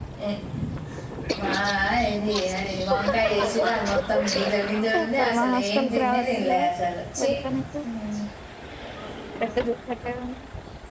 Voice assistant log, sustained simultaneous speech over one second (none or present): present